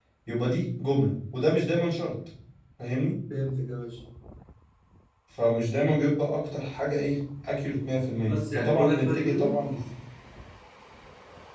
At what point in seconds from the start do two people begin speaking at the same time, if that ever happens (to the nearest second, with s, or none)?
8 s